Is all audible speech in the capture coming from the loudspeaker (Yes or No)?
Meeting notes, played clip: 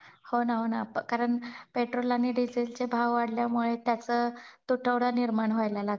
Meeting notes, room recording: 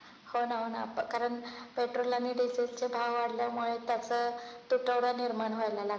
Yes